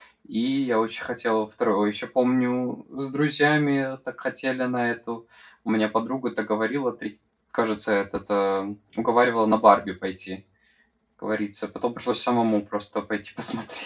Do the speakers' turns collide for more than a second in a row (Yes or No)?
No